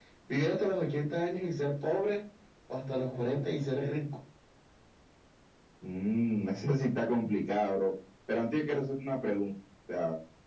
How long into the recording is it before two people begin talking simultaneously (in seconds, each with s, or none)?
none